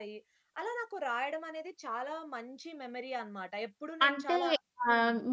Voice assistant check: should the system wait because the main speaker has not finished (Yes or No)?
No